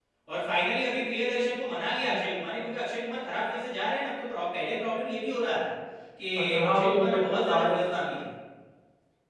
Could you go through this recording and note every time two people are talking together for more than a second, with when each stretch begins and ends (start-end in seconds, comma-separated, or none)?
6.3-7.8